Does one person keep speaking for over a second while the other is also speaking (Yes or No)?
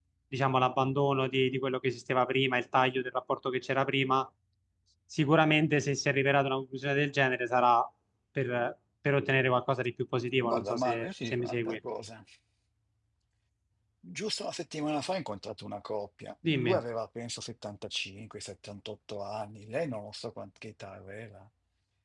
Yes